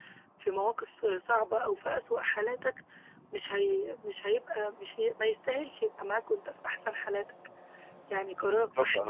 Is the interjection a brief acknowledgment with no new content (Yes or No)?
No